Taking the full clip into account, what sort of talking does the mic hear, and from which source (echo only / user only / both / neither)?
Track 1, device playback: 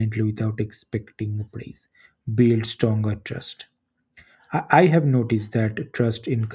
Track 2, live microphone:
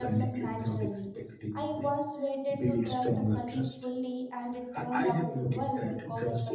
both